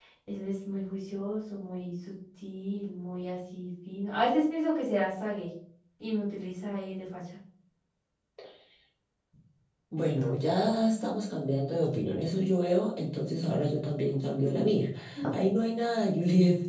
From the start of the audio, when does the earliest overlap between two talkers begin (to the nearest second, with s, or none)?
none